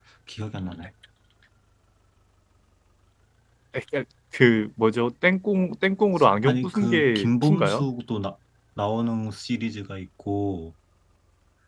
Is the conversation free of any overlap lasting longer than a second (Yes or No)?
No